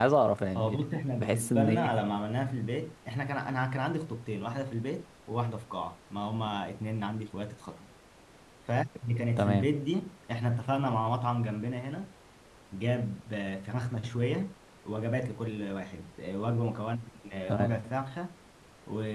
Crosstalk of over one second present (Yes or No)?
Yes